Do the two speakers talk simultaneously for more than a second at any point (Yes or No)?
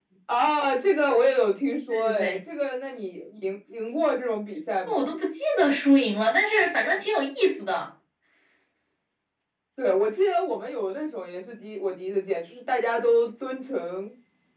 No